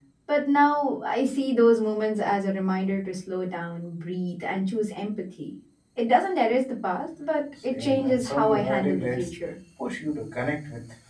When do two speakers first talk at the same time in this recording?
7.7 s

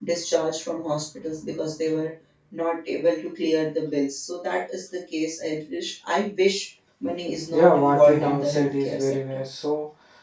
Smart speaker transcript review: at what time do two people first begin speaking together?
7.5 s

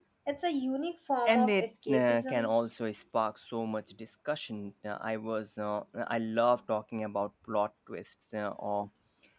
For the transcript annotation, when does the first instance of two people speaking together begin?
1.3 s

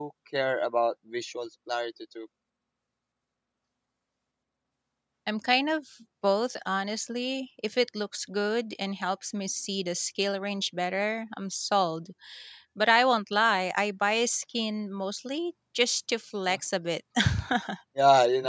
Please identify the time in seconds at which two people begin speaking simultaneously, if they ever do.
none

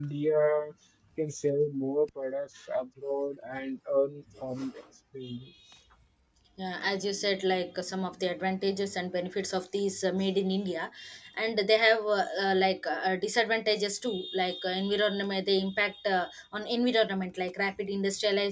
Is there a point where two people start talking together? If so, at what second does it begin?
none

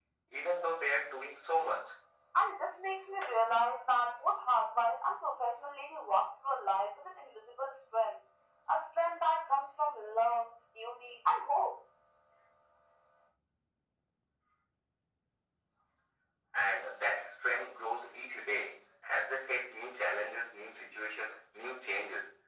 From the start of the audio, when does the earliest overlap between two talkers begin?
none

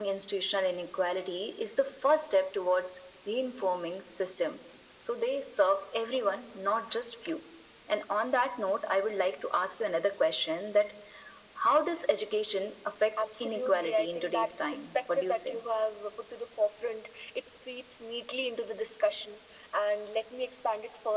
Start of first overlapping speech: 13.2 s

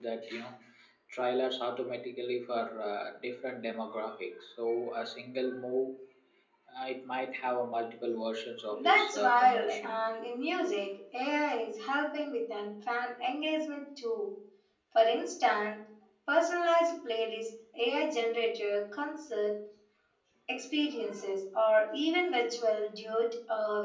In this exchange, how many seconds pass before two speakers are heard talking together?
8.7 s

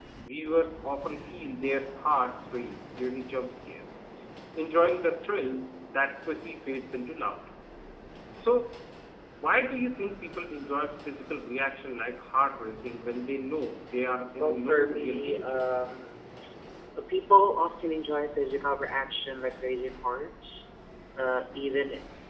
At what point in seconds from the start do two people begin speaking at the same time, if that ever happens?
14.4 s

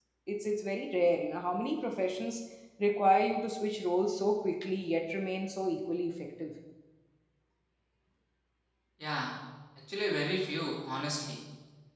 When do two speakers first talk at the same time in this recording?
none

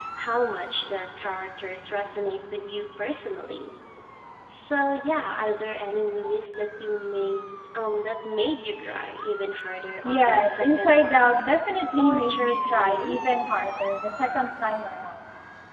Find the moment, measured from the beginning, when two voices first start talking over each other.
10.0 s

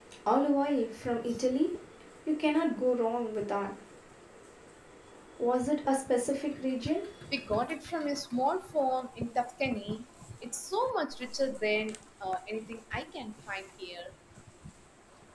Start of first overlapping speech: none

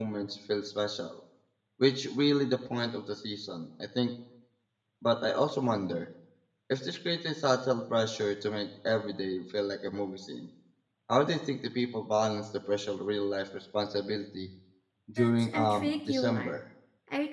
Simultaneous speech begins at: 15.2 s

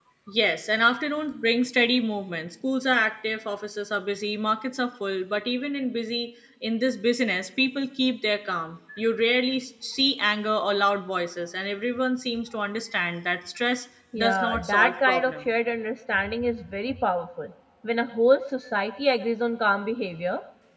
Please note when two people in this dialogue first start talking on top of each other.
14.1 s

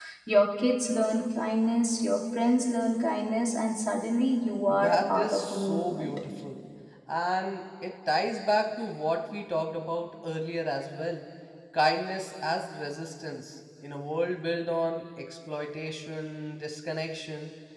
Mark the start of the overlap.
4.7 s

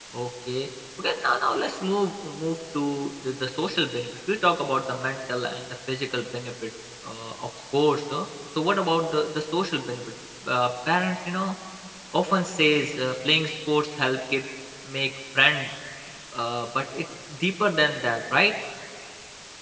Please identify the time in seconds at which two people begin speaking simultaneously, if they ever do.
none

